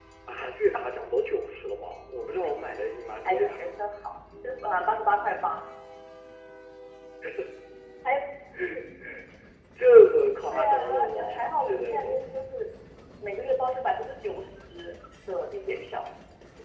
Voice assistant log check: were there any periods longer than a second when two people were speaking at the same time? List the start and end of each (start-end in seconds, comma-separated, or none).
10.5-12.3